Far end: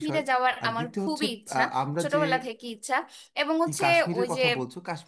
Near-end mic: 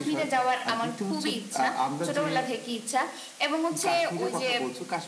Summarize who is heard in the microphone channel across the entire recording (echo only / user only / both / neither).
echo only